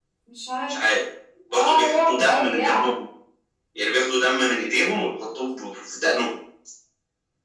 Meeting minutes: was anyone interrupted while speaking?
Yes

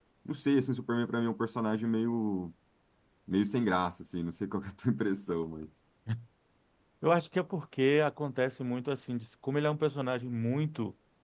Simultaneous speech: No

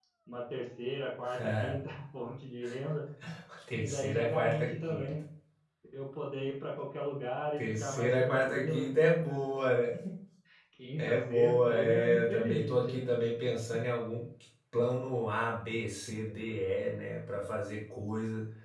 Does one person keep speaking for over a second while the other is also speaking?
Yes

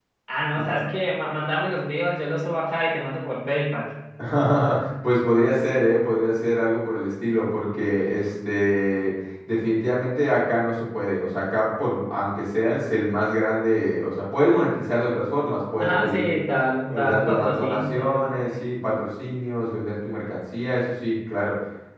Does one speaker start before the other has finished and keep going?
Yes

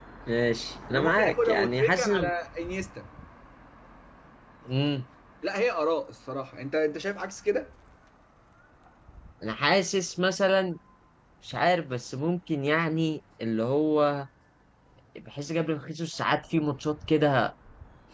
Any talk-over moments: Yes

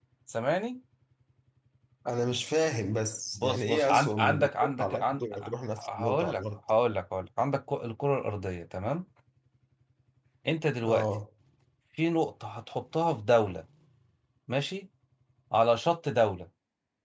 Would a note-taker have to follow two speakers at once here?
Yes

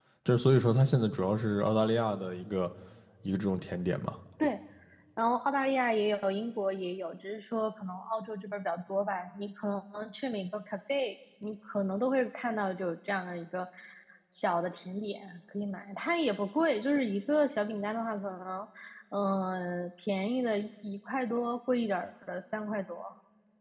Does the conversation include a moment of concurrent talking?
No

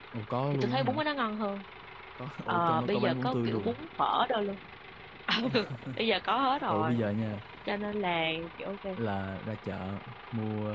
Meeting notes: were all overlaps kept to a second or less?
No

